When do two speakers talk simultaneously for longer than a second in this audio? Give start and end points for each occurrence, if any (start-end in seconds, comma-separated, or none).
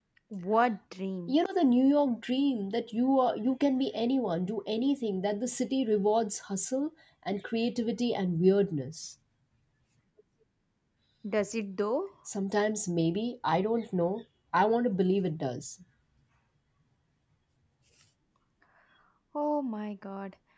none